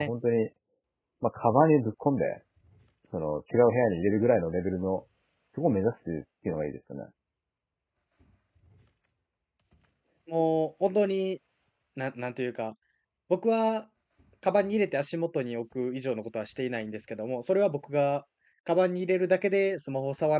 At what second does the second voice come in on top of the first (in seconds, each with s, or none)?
none